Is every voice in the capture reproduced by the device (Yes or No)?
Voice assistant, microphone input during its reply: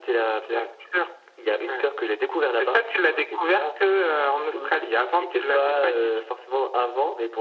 Yes